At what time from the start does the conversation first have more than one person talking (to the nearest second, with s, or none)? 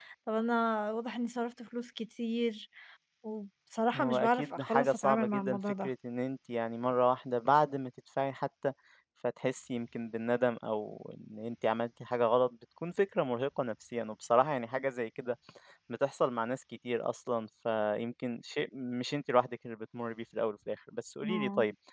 4 s